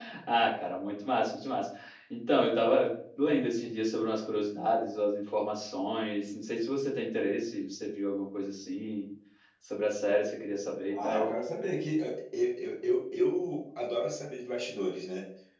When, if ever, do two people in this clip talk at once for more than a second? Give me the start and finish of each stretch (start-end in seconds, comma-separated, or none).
none